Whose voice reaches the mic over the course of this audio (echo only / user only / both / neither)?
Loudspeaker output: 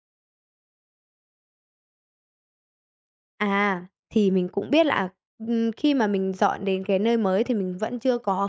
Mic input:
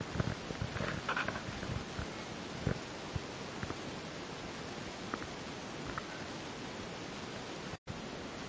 neither